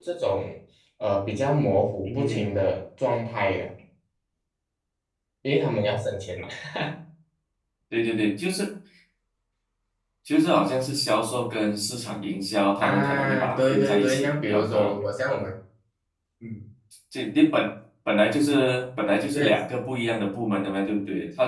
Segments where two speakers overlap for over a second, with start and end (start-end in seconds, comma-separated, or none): 12.8-14.9